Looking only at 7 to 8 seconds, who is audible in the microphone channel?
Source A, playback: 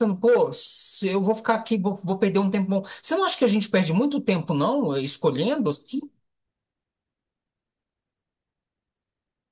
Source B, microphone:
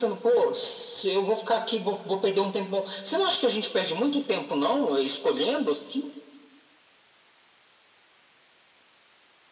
neither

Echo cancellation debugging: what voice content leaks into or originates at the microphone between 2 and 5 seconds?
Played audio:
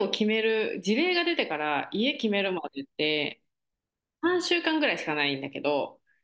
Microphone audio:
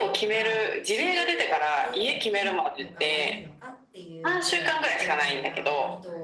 both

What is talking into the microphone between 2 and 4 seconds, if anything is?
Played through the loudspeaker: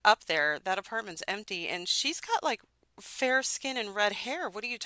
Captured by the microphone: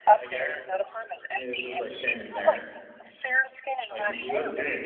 both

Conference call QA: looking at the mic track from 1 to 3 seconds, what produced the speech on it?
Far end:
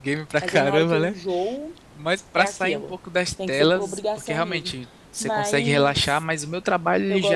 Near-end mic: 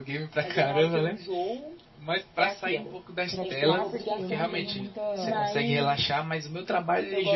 echo only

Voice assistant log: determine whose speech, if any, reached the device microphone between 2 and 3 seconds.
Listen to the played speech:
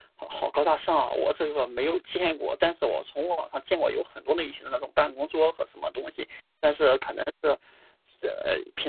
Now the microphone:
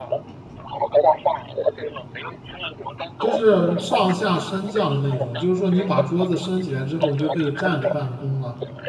echo only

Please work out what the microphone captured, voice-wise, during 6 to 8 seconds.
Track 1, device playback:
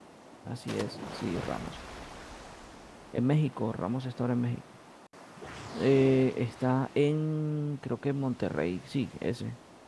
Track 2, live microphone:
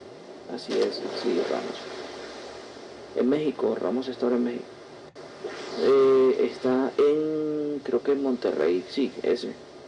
echo only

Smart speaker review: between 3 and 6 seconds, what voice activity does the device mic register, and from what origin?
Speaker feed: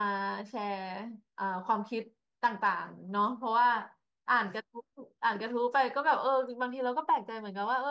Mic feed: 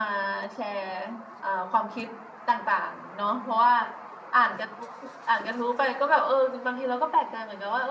echo only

